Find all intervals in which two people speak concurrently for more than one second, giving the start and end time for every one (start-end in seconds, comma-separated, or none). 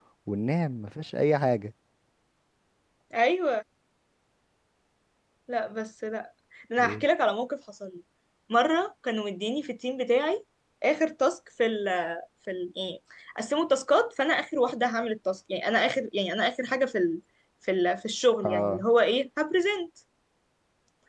none